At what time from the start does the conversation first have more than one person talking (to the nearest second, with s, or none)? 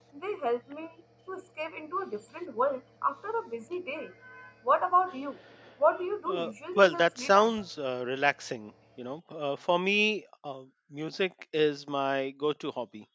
6 s